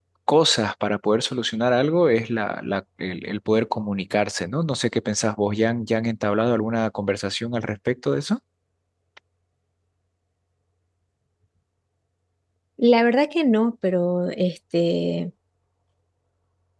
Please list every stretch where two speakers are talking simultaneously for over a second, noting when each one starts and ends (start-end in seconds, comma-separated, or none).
none